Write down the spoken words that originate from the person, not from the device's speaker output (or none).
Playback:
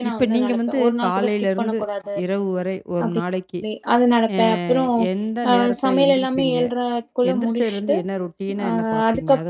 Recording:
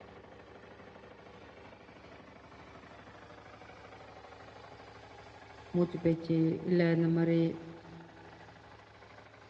மூச்சு பேச்சு, இல்ல இந்த மாரி